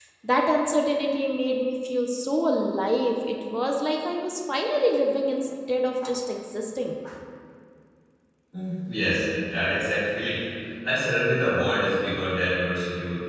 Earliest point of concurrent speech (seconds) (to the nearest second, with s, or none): none